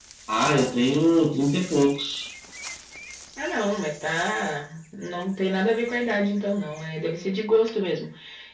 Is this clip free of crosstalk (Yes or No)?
Yes